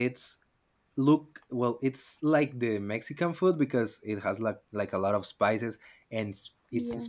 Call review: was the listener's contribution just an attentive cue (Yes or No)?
Yes